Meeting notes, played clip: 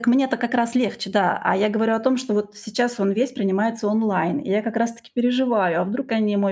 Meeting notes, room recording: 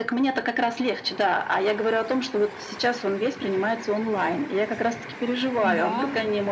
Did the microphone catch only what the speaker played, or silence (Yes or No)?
No